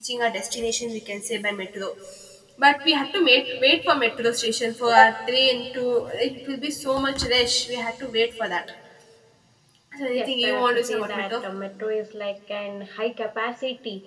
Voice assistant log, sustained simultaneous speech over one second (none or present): present